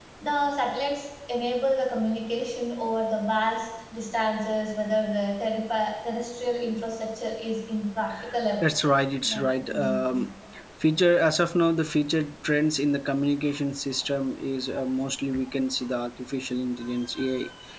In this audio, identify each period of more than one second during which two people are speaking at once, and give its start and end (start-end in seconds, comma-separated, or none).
8.6-10.3